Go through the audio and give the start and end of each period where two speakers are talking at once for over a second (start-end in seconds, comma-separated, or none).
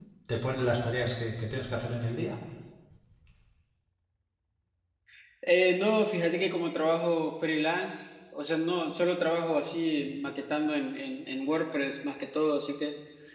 none